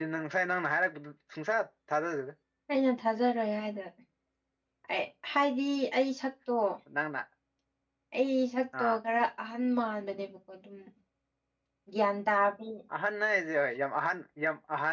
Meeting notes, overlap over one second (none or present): none